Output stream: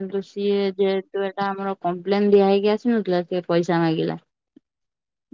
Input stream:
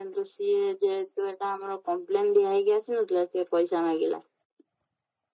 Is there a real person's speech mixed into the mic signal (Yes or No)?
No